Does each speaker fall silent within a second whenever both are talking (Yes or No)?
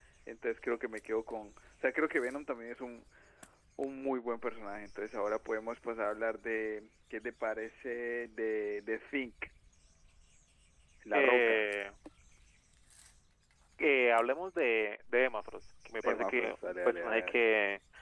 No